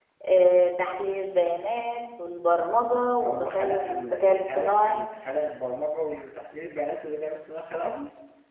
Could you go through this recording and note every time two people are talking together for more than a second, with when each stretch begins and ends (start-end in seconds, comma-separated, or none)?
3.2-5.0